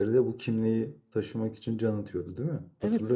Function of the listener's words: taking over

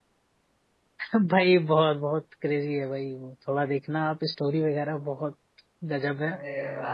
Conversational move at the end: listening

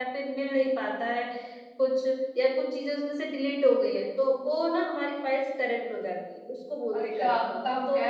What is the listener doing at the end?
taking over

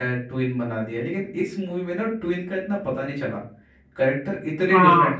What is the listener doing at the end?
listening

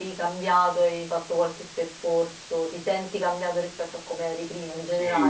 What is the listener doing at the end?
taking over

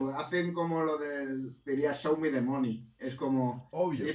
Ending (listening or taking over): listening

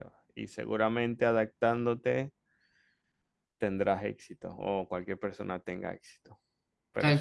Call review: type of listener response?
taking over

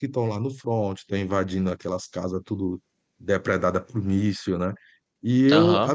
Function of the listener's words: listening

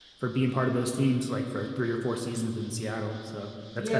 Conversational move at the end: taking over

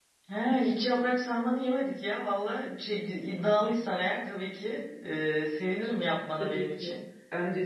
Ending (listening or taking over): taking over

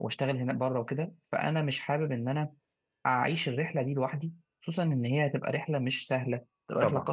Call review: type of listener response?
listening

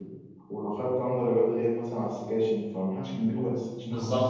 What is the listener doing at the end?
taking over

